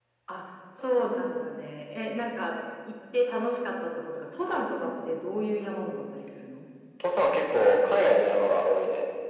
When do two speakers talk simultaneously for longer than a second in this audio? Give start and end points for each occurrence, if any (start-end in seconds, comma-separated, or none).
none